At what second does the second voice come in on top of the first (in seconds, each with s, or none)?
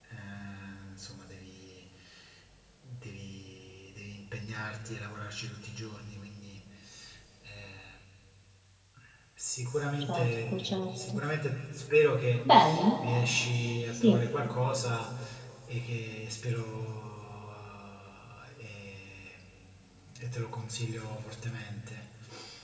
10.0 s